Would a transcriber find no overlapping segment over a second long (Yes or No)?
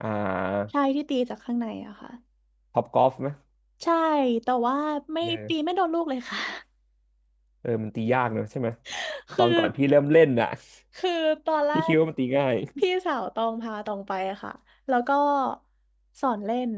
Yes